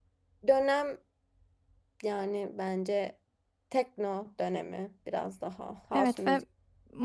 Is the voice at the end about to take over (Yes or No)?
Yes